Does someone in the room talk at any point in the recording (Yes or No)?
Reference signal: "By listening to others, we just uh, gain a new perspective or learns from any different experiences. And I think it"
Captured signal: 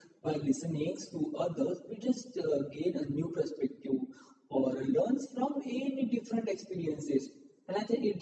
No